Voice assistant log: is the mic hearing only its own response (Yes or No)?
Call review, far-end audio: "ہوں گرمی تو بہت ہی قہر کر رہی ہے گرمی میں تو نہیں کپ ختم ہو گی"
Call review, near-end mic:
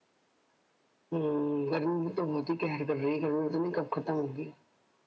Yes